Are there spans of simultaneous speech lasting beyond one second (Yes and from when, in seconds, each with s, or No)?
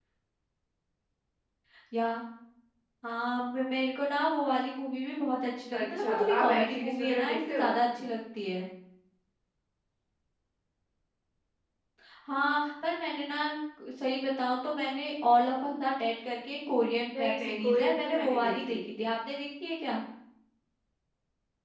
Yes, from 5.8 s